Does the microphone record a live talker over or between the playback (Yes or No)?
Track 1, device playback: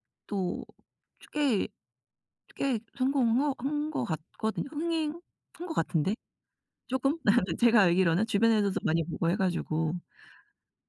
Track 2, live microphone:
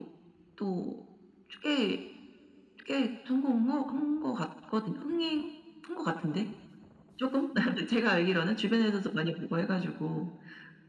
No